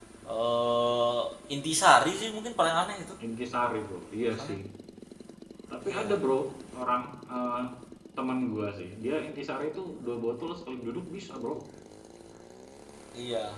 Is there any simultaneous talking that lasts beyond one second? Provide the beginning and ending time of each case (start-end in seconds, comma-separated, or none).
none